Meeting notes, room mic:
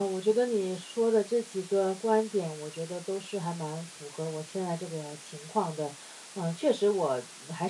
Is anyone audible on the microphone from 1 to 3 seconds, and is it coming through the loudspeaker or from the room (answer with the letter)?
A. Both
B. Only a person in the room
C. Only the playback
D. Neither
B